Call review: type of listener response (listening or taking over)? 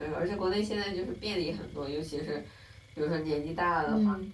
listening